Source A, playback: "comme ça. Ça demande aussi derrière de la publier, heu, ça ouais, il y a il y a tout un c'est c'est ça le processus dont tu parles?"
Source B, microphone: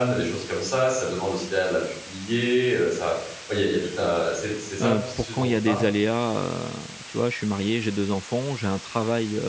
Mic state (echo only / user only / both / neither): both